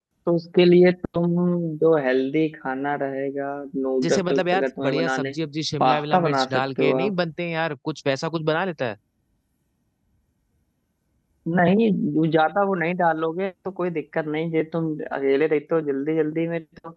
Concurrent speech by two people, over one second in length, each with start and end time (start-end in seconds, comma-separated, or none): 4.0-5.3, 5.8-7.1